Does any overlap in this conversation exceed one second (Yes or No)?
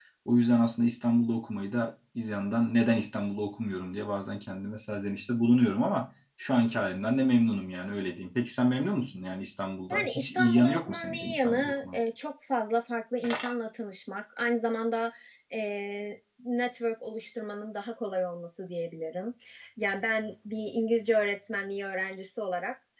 Yes